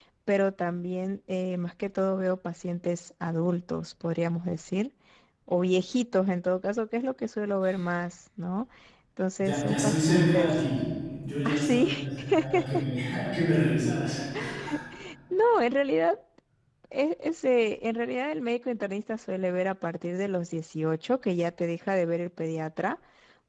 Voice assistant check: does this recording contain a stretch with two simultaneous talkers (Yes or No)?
Yes